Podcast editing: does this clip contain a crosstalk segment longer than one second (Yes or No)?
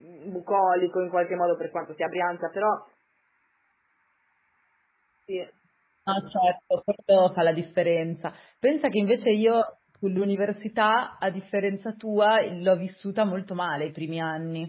No